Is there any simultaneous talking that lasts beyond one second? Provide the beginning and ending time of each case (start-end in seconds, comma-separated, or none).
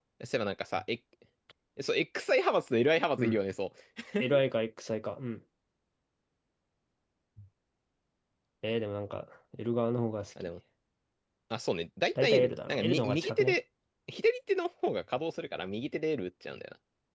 12.2-13.6